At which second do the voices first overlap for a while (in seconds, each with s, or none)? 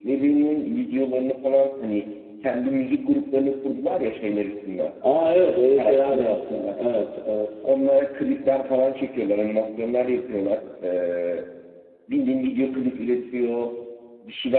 5.0 s